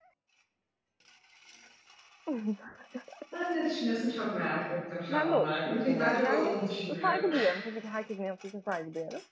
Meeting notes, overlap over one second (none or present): present